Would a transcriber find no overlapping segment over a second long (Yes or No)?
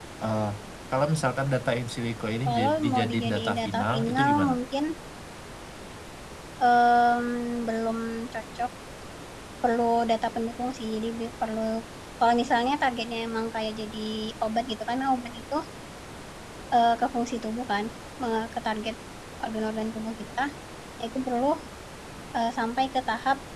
No